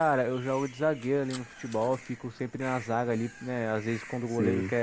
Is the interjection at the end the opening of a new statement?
No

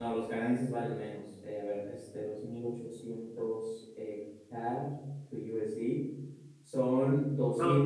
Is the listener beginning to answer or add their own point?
No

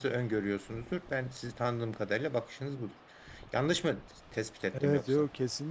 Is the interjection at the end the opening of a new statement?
Yes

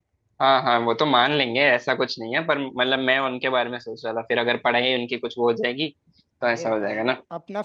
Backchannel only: No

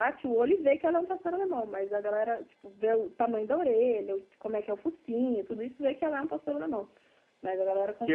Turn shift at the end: Yes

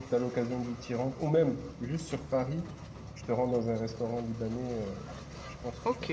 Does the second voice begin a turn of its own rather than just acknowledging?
Yes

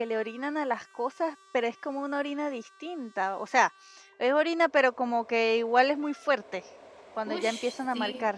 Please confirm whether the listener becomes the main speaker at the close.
Yes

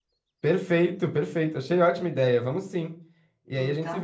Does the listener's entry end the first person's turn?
No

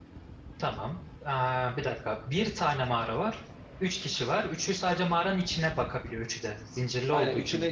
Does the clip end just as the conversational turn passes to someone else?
Yes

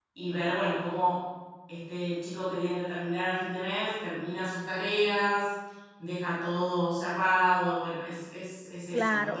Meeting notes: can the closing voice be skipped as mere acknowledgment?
No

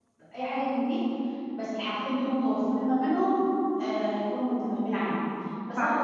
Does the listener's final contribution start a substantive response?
No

